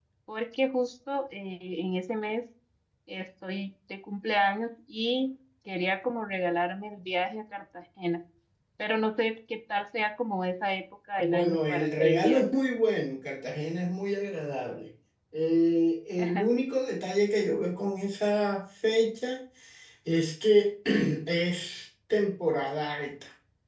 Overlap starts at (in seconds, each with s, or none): 11.2 s